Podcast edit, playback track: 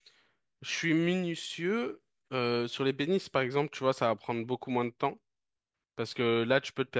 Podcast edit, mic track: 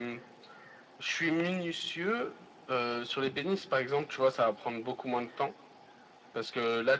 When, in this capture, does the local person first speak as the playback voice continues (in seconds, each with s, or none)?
none